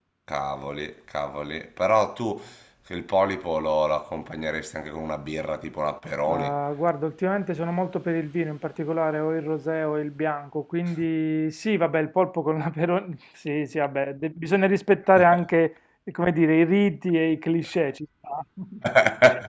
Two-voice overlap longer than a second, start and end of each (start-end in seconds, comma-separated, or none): none